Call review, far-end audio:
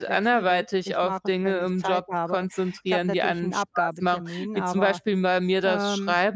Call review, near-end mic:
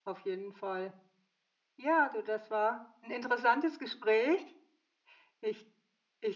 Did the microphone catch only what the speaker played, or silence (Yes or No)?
No